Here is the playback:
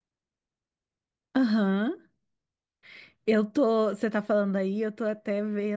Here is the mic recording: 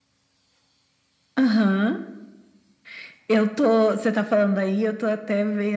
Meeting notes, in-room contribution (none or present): none